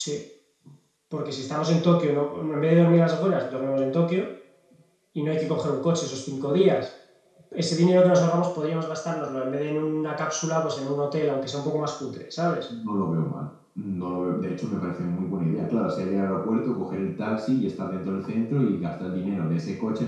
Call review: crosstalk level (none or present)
none